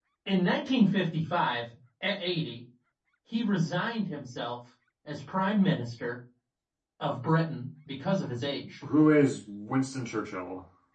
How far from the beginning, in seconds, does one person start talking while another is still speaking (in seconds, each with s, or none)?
none